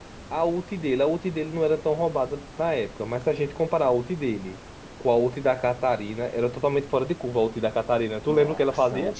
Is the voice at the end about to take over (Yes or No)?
Yes